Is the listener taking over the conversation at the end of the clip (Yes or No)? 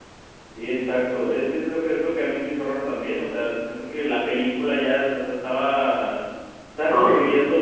No